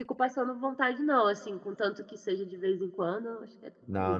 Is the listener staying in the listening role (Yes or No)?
No